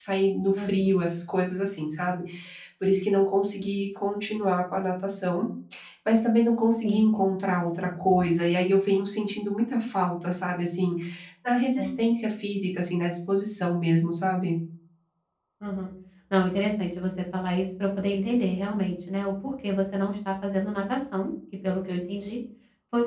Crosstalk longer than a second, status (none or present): none